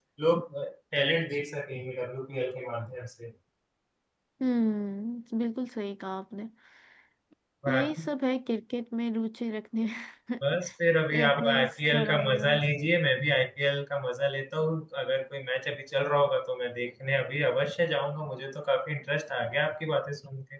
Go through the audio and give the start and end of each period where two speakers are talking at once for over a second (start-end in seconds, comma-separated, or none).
11.1-12.5